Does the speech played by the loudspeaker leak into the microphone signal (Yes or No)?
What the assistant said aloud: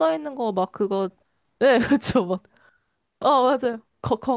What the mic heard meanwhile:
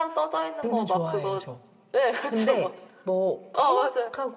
Yes